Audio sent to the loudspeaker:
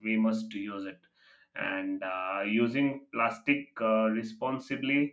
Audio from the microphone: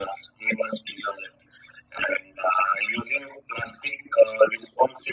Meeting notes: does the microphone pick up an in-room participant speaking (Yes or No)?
No